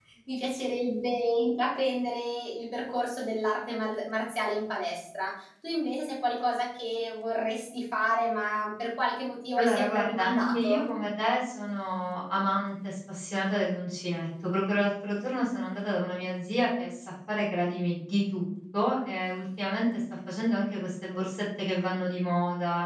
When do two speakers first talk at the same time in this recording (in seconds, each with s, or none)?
9.6 s